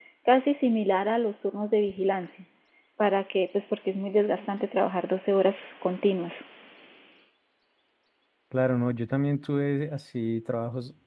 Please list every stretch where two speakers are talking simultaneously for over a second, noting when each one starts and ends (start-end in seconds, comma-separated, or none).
none